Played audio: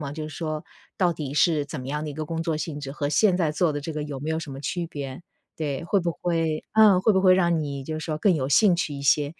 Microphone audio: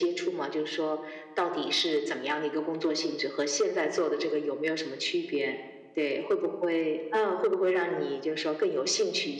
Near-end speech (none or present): none